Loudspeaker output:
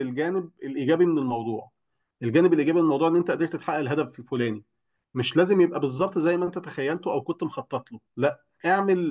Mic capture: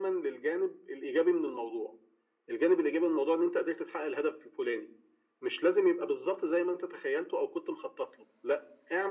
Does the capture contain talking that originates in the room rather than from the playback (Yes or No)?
No